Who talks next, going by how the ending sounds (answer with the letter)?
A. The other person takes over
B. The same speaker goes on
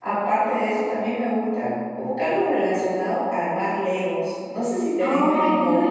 A